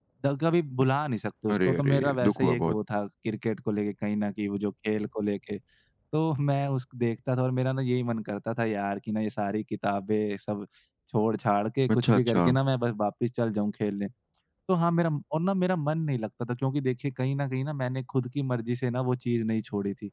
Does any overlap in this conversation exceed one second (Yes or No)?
Yes